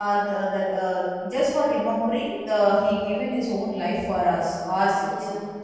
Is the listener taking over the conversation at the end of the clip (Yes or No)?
No